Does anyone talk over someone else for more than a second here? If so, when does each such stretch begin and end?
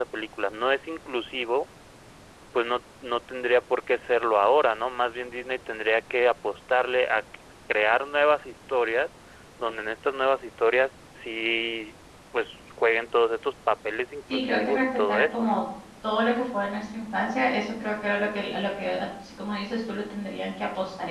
14.3-15.7

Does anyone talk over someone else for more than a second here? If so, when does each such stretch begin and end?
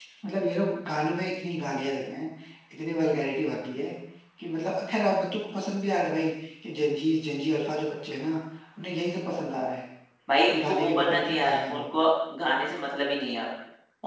10.5-11.9

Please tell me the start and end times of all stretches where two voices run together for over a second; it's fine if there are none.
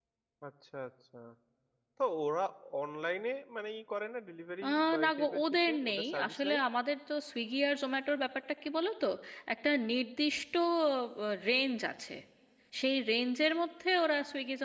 4.6-6.6

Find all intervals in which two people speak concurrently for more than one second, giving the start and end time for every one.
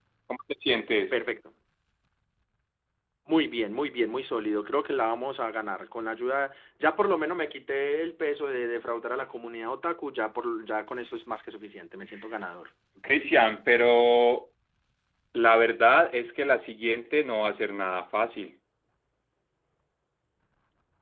none

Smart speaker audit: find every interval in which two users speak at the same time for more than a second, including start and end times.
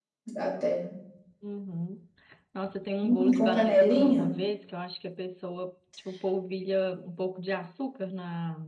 3.0-4.3

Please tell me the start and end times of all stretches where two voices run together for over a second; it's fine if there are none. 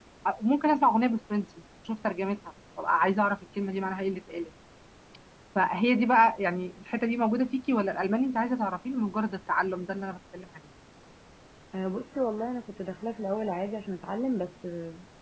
none

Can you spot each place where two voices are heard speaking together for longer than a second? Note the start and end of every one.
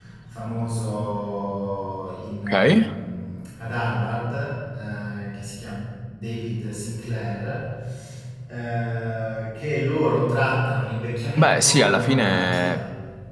11.4-12.8

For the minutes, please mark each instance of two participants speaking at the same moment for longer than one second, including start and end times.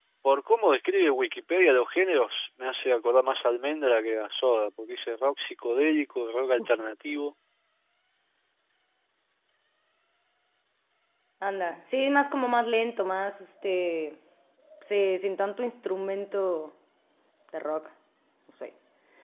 none

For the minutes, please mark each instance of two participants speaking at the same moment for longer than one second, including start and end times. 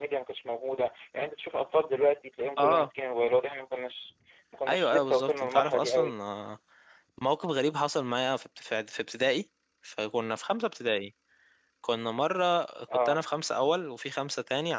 4.7-6.1

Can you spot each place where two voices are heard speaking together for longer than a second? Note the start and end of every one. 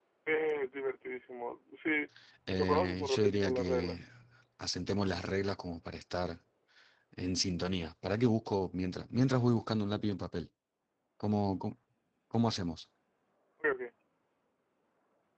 2.6-4.0

